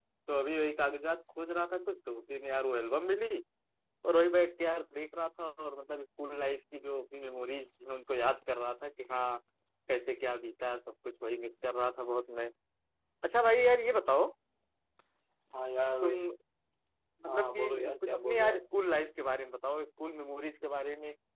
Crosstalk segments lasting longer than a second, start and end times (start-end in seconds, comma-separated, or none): 17.3-18.6